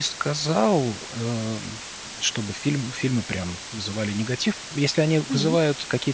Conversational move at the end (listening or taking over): listening